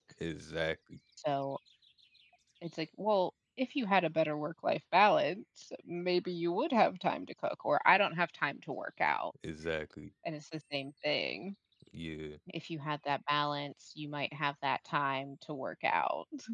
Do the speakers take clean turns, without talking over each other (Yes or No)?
Yes